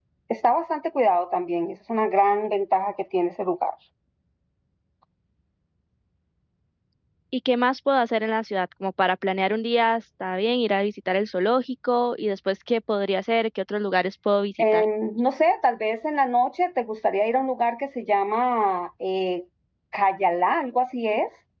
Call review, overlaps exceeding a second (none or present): none